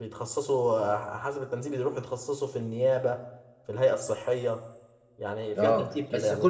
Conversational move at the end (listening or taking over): taking over